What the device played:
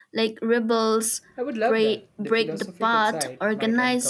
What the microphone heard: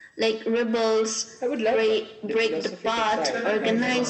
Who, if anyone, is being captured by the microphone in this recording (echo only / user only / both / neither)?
both